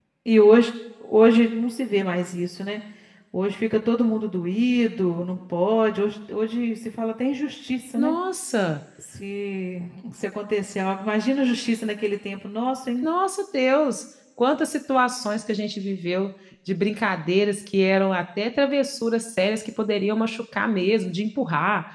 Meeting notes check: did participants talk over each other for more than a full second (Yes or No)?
No